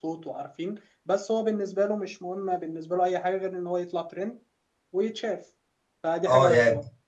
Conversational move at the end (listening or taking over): taking over